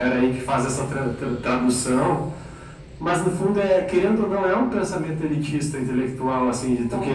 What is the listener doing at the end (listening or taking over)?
listening